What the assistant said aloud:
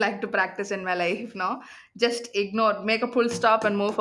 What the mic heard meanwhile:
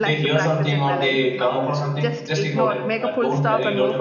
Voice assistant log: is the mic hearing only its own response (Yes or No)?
No